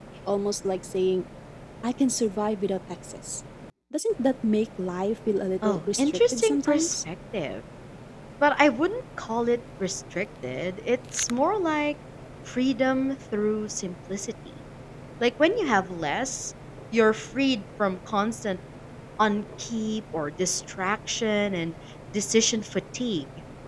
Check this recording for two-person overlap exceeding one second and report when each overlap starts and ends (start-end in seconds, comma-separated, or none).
5.6-6.9